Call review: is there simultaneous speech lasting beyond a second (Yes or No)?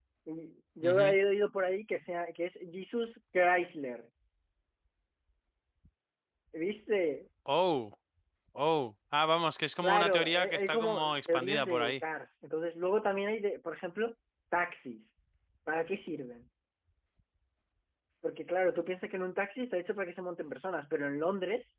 Yes